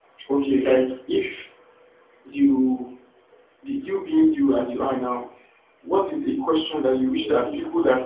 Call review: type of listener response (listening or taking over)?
listening